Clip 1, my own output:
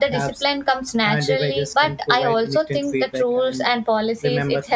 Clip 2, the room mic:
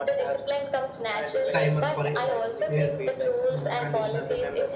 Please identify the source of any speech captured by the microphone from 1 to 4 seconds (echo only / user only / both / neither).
both